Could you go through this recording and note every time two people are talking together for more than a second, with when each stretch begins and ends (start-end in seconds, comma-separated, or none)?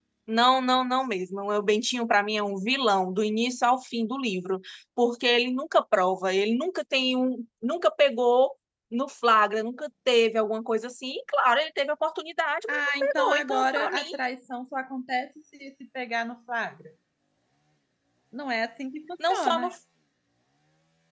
12.7-14.0